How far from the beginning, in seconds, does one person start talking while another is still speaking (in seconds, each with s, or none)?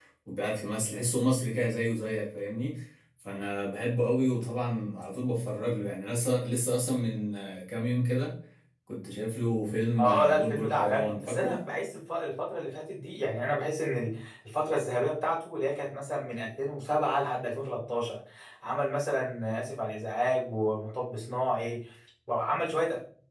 10.0 s